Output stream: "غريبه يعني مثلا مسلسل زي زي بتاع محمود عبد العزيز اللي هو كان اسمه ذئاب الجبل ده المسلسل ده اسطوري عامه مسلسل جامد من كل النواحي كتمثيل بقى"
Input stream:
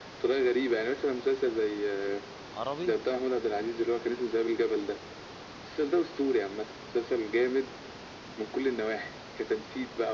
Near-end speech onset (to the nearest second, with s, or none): 3 s